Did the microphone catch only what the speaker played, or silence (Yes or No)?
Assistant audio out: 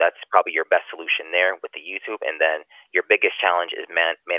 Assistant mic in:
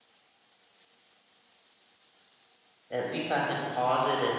No